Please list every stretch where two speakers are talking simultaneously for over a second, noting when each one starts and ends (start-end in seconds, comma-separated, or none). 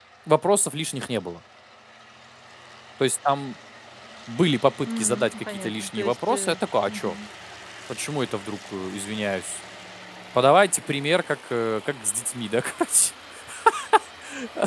4.9-6.5